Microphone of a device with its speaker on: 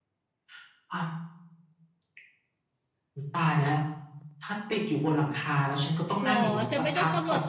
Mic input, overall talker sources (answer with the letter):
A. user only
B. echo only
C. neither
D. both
D